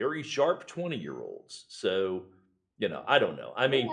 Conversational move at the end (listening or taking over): taking over